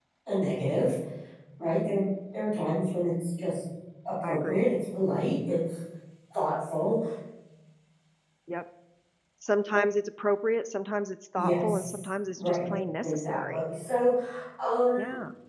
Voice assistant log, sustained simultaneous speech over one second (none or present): present